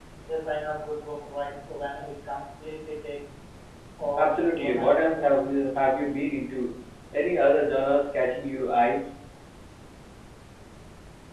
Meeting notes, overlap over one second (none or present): present